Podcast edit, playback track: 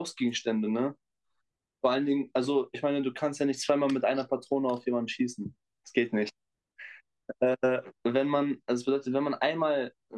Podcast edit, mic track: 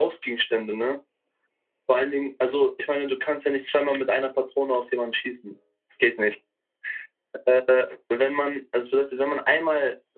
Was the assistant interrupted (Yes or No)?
No